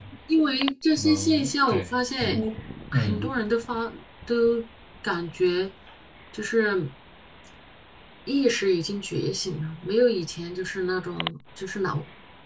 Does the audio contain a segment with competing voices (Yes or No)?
Yes